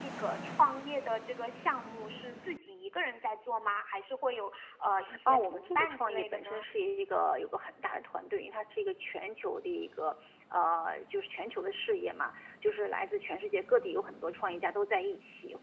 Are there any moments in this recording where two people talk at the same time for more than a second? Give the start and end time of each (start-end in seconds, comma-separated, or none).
5.3-6.7